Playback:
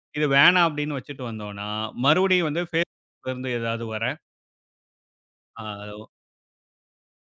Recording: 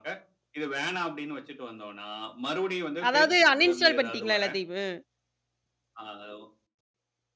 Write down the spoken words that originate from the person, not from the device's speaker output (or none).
அதாவது அன்இன்ஸ்டால் பண்ணிட்டீங்களா எல்லாத்தையுமே?